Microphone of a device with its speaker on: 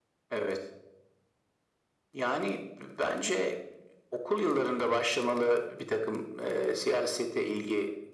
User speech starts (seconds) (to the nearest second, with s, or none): none